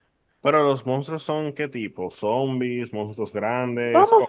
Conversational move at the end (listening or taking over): taking over